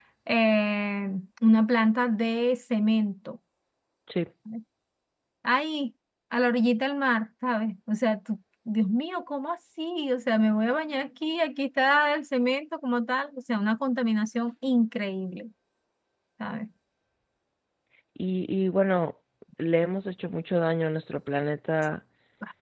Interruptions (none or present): none